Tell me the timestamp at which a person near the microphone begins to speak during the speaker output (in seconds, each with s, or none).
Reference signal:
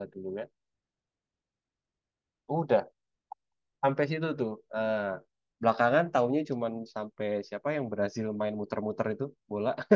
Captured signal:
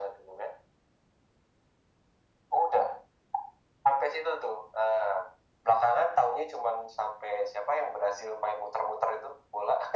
none